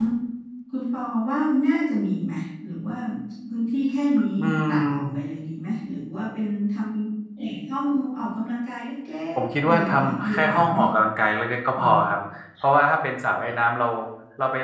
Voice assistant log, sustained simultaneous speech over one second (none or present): present